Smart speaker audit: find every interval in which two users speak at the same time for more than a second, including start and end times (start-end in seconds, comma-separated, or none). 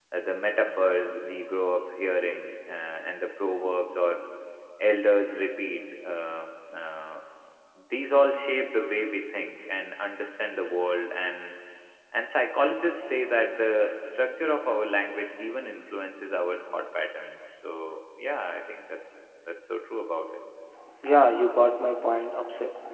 none